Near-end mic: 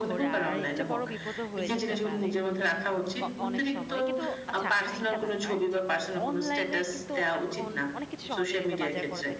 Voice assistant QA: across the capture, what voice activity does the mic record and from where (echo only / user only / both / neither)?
both